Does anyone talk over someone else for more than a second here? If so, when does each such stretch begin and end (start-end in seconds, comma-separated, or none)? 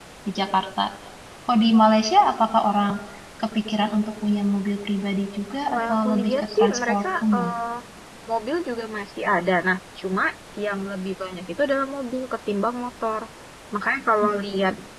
5.7-7.5